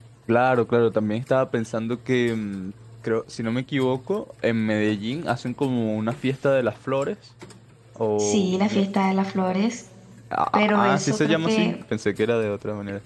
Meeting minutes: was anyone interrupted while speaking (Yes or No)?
Yes